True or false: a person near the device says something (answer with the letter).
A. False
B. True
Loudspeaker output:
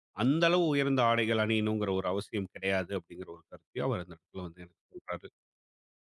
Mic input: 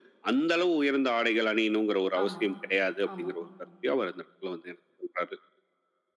B